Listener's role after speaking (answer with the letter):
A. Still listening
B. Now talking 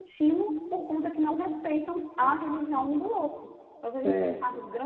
A